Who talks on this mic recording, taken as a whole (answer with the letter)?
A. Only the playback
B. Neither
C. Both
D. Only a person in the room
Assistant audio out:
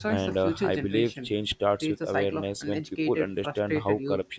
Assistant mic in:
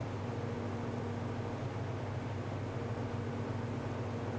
B